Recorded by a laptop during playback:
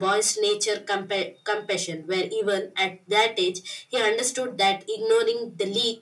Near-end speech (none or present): none